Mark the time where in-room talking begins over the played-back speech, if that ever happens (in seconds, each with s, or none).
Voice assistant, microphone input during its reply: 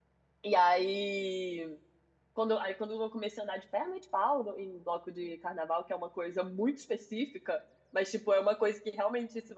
0.4 s